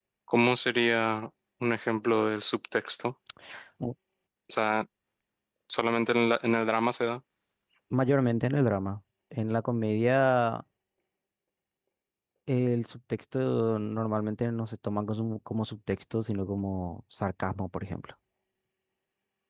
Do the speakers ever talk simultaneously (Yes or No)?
No